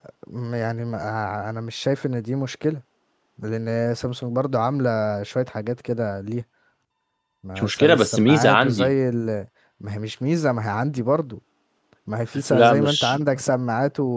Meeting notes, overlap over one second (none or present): present